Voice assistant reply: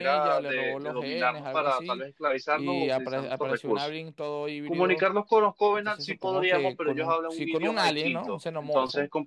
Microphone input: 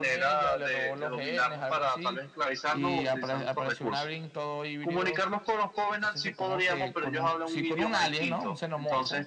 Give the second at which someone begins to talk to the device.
none

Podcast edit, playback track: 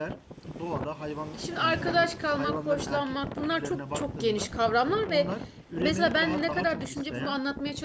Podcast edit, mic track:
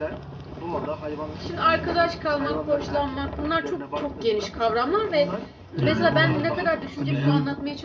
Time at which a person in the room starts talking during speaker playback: 5.8 s

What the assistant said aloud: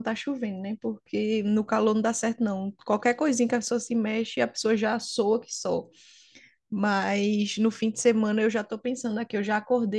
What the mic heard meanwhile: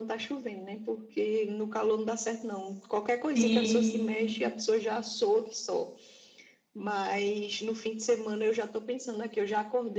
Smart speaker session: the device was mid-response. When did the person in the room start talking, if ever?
3.3 s

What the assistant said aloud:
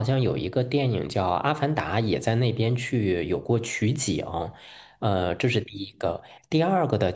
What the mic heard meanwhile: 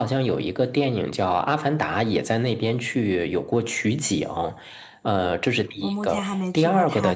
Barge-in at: 5.8 s

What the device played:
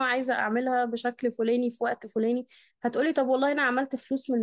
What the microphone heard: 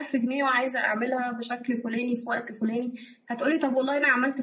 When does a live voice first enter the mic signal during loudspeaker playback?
none

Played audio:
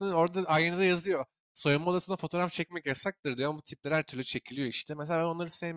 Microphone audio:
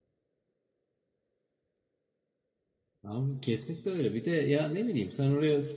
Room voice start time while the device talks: 3.0 s

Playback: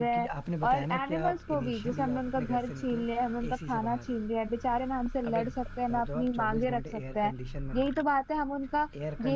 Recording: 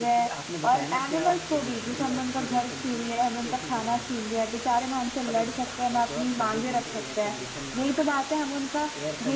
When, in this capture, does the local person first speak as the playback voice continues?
none

